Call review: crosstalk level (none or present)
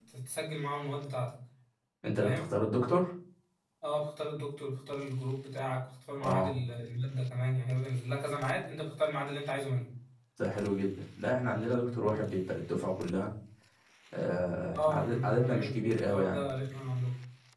present